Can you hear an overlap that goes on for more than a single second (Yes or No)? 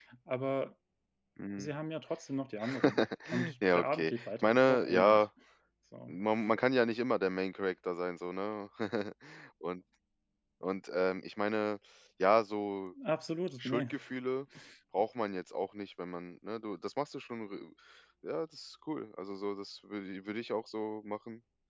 Yes